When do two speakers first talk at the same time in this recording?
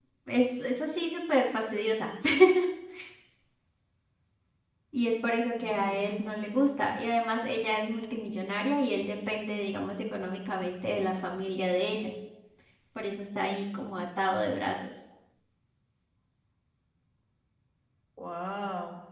5.6 s

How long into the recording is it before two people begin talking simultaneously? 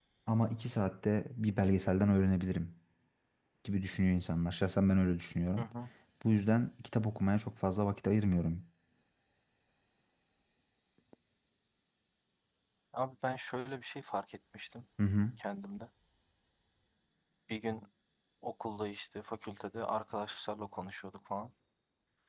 none

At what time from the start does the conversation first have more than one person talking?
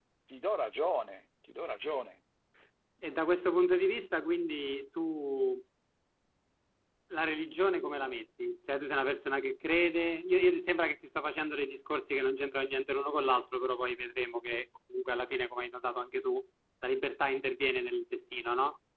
none

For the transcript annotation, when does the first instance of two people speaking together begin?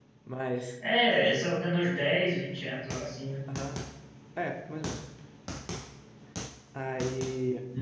none

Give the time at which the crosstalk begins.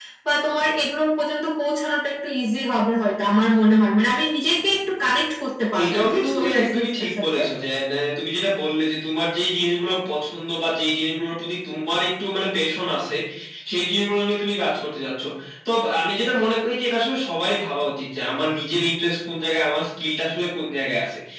5.7 s

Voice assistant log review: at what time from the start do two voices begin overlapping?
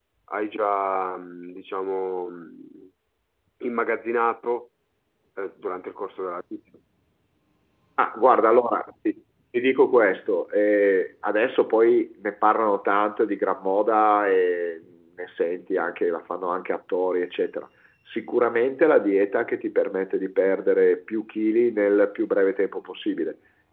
none

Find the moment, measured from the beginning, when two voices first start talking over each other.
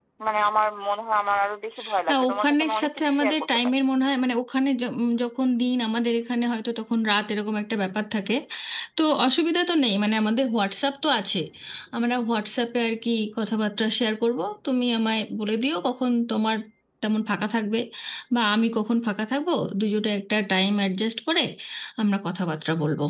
2.1 s

